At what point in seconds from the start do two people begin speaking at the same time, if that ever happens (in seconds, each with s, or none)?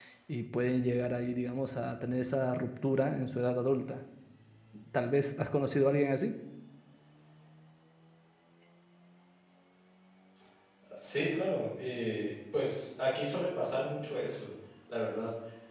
none